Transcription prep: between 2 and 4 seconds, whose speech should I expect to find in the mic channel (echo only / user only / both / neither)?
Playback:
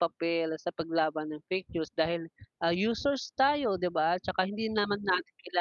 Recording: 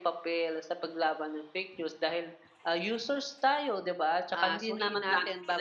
echo only